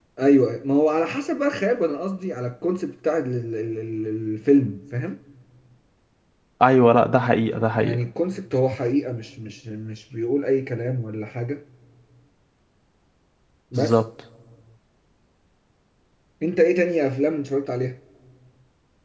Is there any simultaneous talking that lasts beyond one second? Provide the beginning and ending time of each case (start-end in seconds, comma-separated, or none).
none